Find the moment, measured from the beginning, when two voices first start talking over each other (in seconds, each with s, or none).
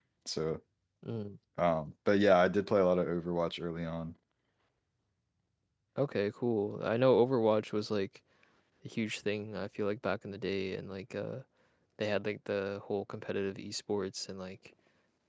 none